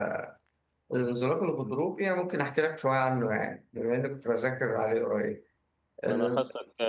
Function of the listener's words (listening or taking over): taking over